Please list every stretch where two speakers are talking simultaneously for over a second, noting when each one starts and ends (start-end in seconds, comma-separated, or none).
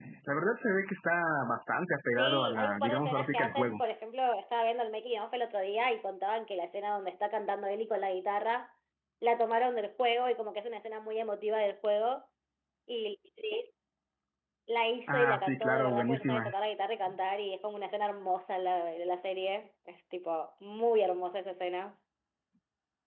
2.2-3.8, 15.1-16.5